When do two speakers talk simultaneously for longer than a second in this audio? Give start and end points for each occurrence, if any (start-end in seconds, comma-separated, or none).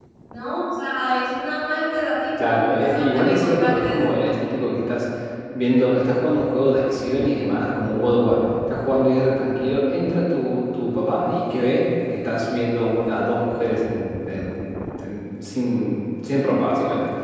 2.4-4.0